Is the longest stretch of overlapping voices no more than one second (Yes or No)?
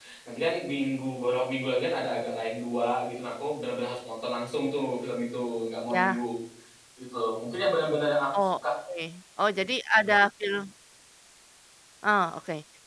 Yes